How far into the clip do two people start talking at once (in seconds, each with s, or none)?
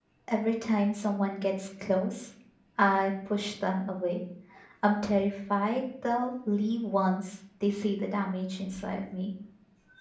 none